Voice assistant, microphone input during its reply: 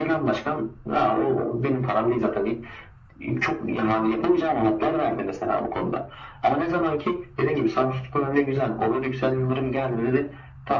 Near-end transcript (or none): none